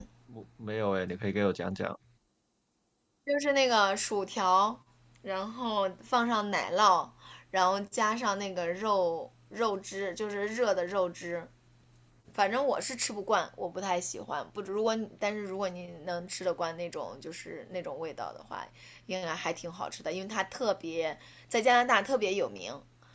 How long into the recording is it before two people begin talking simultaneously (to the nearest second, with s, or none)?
none